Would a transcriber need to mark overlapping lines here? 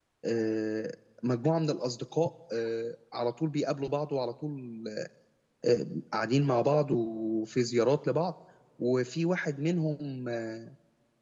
No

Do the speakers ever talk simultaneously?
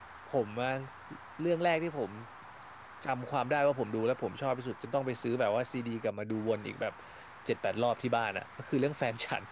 No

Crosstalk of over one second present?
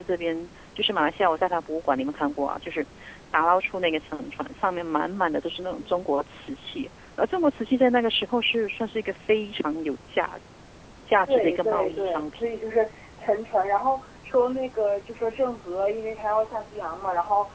Yes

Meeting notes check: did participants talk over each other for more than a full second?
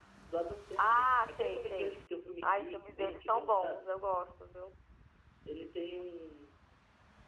Yes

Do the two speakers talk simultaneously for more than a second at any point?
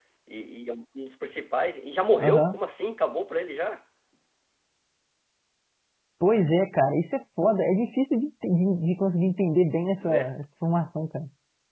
No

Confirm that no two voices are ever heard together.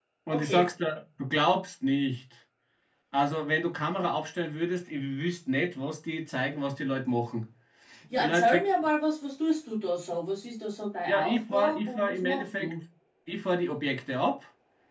No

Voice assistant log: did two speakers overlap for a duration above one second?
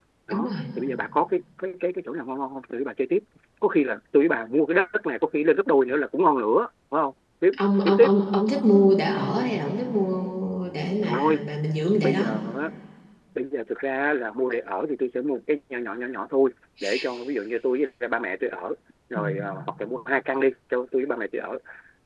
No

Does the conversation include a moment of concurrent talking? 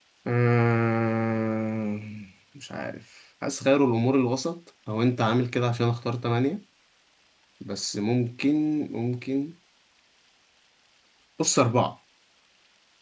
No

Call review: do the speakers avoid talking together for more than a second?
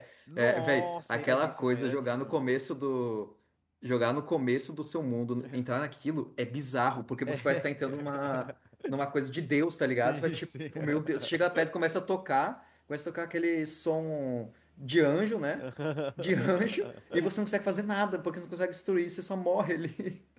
No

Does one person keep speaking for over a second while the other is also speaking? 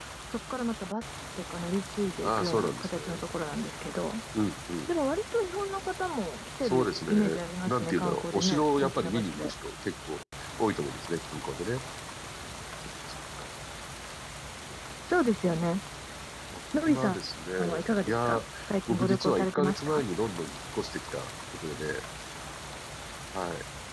Yes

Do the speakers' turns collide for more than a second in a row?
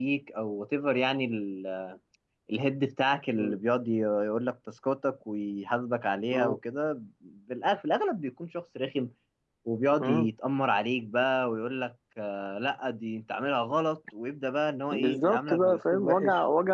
Yes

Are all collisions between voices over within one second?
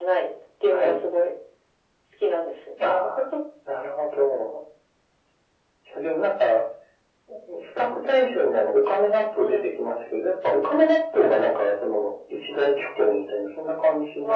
Yes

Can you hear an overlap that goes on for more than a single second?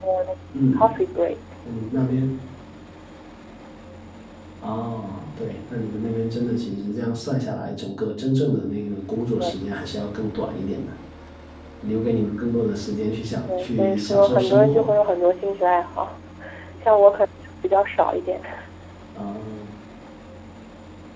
Yes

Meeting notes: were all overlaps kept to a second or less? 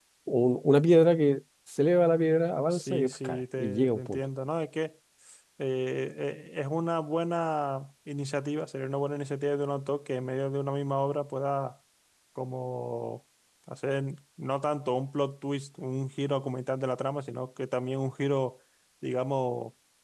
No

